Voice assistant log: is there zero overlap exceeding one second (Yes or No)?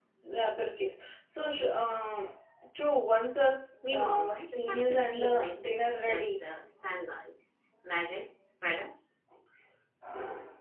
No